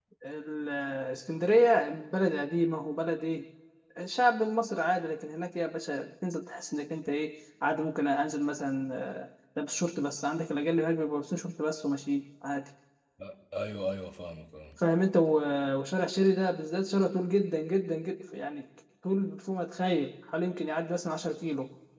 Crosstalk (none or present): none